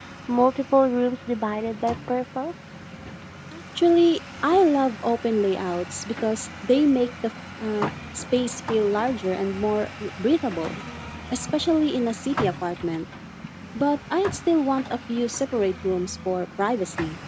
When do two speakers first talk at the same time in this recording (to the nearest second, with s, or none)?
none